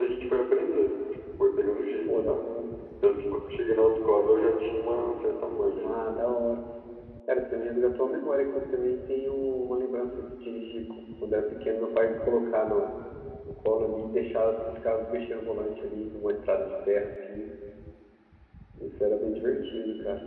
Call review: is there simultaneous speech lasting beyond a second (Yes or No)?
No